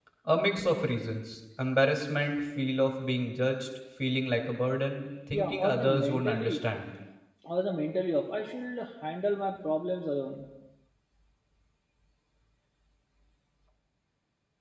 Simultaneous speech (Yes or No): Yes